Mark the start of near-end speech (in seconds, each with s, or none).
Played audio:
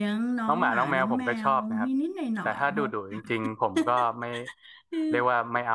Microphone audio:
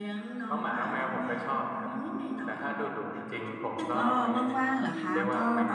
3.9 s